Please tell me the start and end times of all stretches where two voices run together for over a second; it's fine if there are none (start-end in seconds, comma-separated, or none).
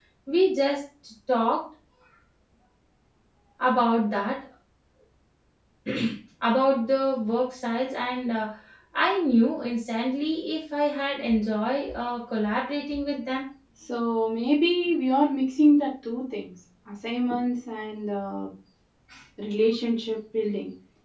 none